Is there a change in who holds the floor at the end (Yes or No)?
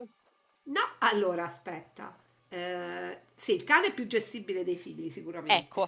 No